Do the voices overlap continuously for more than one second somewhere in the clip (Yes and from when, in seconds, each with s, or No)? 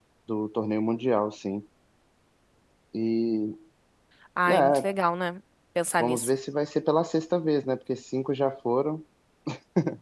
No